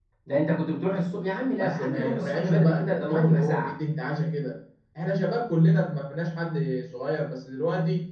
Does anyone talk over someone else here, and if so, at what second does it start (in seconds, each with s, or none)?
1.6 s